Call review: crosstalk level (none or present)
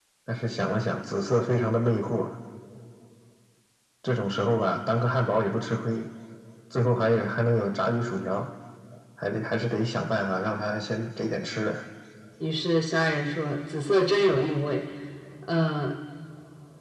none